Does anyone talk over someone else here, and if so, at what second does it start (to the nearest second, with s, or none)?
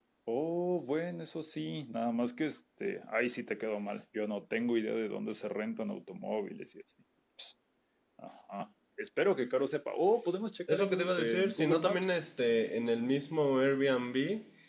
11 s